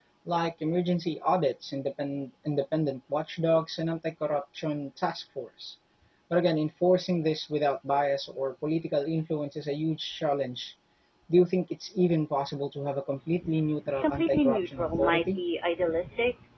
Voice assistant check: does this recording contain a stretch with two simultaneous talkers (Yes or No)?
Yes